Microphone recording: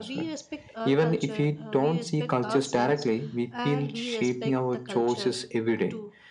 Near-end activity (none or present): present